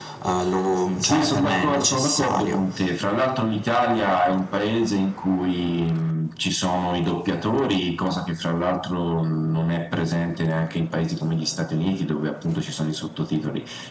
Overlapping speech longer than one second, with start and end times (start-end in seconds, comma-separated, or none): 1.0-2.6